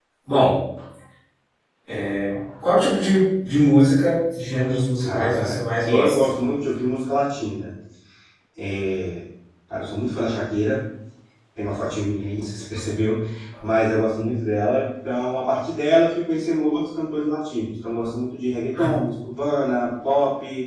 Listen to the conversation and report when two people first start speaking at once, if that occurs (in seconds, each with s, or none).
5.0 s